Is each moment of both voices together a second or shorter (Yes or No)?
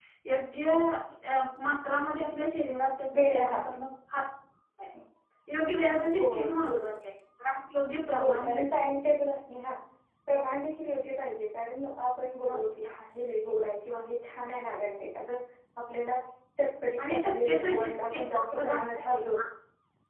No